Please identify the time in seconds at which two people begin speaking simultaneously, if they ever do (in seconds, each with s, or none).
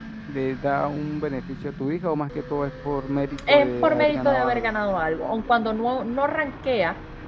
3.5 s